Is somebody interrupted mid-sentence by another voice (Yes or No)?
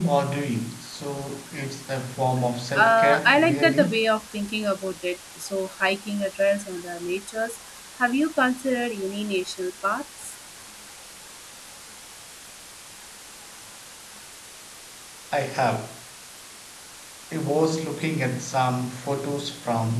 Yes